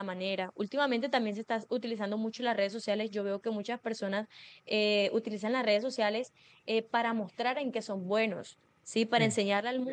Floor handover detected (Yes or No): No